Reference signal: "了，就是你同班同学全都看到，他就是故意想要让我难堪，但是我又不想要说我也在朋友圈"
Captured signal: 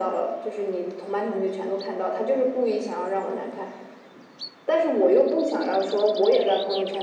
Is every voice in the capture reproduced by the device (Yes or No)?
Yes